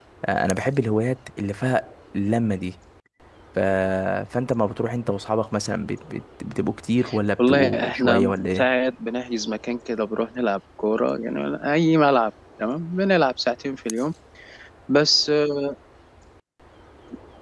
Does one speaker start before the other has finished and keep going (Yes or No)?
Yes